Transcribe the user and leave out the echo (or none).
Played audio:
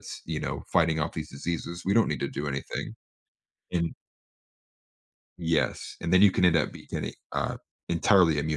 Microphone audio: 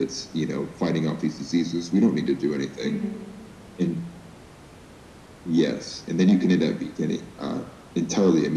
Mhm.